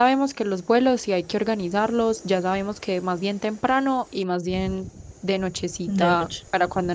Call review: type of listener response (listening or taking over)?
listening